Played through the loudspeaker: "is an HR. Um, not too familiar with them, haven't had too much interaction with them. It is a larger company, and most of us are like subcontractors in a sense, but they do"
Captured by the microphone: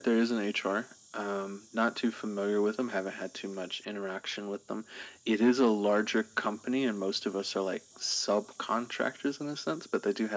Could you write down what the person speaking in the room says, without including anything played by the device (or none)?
none